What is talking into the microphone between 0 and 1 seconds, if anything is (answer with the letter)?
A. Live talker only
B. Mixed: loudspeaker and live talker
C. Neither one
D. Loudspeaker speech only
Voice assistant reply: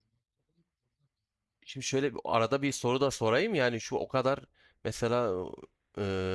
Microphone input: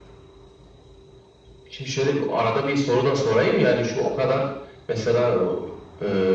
C